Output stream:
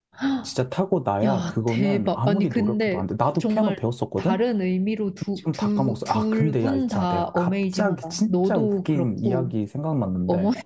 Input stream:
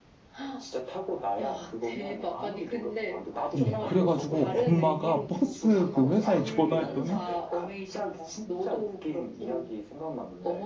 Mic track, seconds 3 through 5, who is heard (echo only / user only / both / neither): both